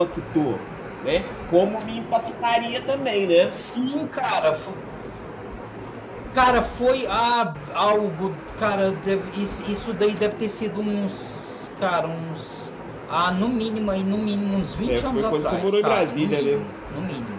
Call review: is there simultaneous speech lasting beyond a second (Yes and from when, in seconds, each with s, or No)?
Yes, from 14.9 s